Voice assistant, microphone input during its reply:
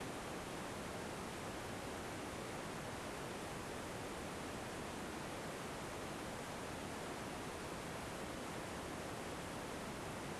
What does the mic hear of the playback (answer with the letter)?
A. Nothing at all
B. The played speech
A